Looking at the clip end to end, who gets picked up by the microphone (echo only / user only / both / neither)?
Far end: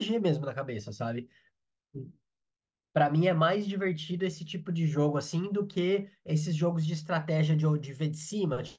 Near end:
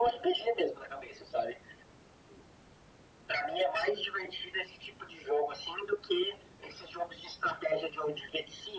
echo only